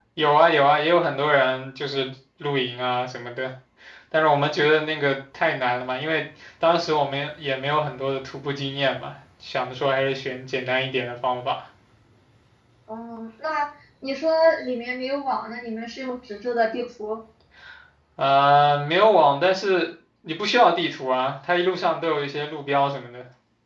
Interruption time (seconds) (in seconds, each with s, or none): none